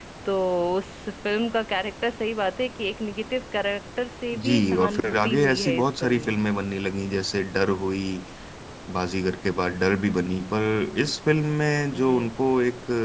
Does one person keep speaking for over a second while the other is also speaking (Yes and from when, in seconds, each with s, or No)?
Yes, from 4.4 s